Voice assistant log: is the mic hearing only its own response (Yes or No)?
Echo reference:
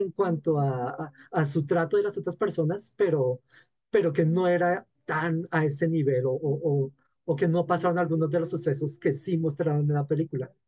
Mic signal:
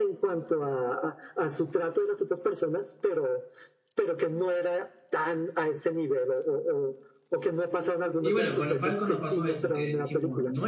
No